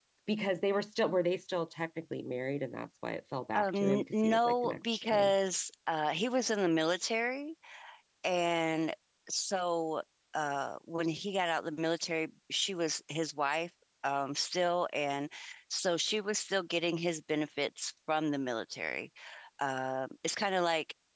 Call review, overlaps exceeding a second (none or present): present